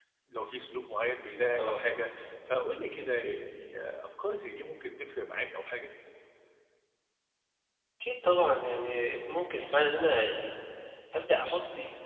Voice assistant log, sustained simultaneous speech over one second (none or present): none